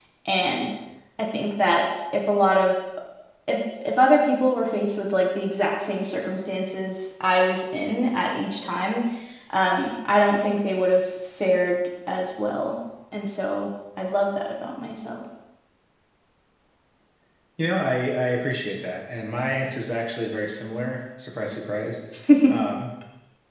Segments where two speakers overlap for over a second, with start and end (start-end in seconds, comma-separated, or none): none